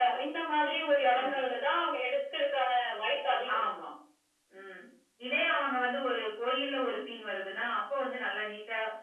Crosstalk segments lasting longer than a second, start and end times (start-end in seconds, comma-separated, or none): none